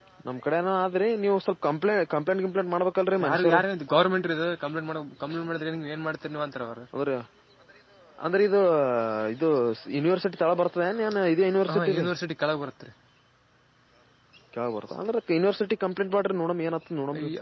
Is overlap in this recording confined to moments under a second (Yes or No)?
Yes